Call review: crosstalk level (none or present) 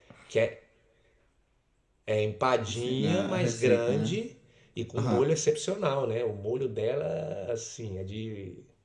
present